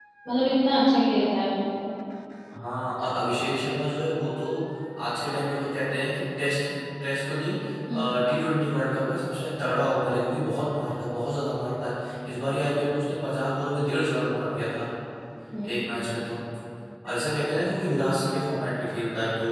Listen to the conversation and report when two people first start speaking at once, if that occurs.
none

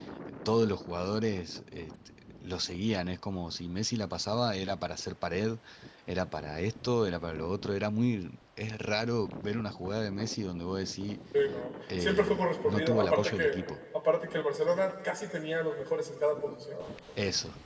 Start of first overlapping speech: 12.0 s

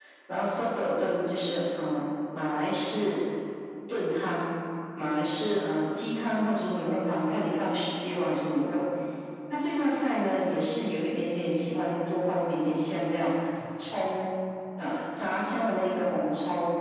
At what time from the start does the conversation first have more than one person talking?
none

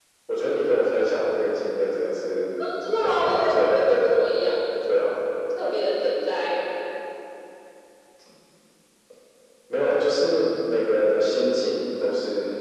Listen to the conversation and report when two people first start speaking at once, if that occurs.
2.8 s

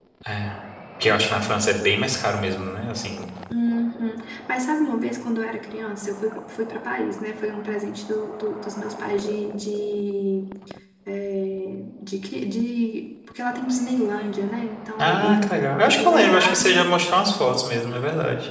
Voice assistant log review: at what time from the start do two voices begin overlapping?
15.0 s

